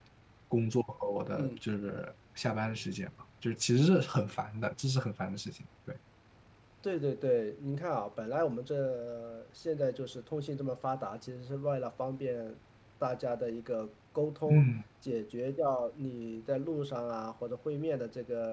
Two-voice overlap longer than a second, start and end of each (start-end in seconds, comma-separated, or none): none